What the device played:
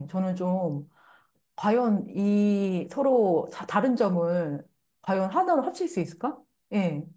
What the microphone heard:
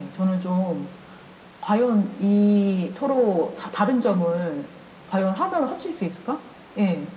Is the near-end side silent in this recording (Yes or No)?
Yes